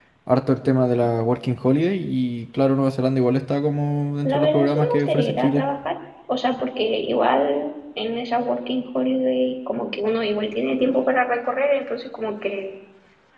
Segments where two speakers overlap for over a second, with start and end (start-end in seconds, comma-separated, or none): 4.2-5.7